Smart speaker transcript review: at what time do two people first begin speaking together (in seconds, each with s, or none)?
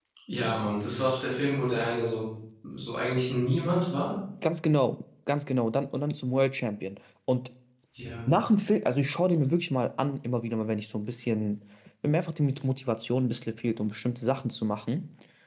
none